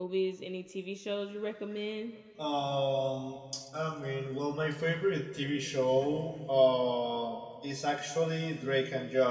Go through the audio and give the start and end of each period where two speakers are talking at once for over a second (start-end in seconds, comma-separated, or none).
none